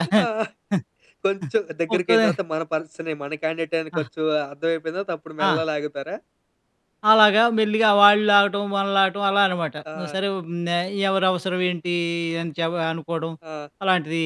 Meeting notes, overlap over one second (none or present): none